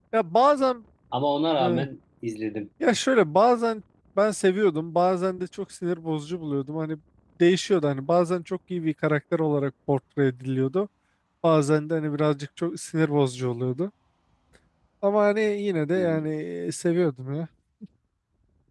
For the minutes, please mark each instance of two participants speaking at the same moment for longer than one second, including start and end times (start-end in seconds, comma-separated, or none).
none